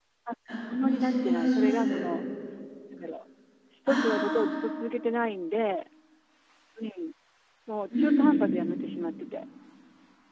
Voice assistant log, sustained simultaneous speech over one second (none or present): present